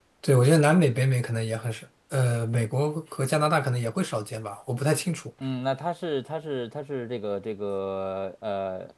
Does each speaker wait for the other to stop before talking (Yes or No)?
Yes